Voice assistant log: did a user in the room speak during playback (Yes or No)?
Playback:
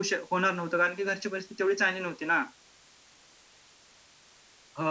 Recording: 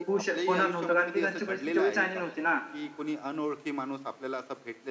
Yes